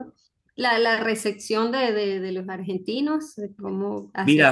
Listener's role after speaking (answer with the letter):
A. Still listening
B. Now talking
B